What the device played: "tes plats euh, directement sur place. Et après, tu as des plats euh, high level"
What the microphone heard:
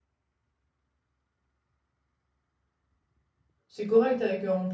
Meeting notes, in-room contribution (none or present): present